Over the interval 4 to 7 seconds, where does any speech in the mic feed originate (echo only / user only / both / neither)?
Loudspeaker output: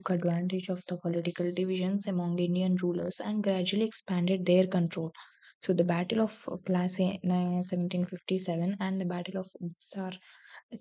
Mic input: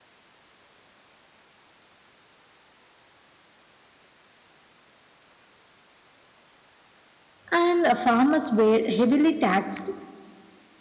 neither